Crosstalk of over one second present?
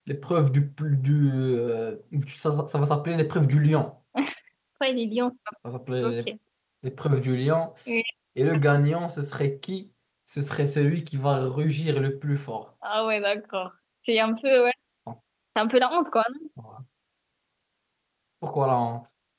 No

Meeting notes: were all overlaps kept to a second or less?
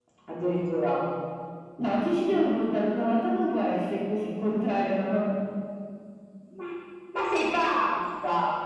Yes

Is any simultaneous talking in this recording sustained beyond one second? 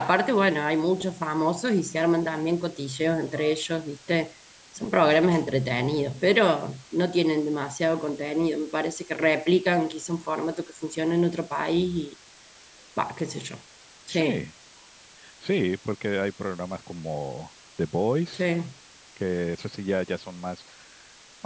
No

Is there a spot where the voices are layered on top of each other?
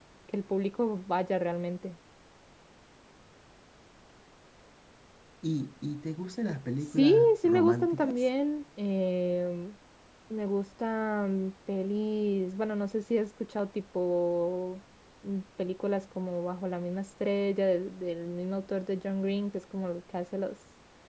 Yes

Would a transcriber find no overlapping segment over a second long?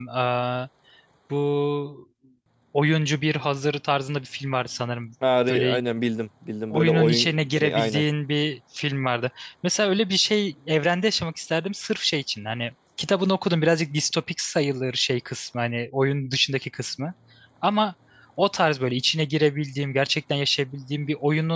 No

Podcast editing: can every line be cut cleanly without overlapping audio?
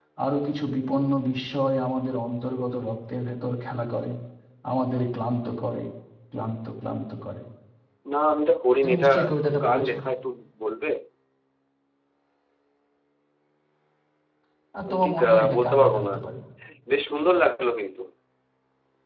No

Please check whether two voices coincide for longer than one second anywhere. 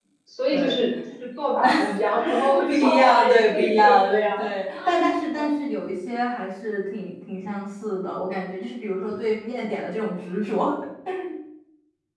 Yes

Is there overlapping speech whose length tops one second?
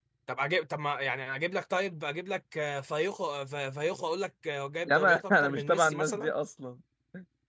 Yes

